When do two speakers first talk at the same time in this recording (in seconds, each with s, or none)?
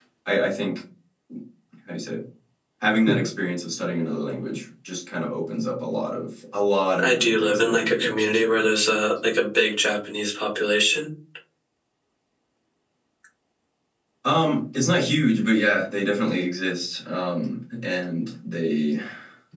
7.0 s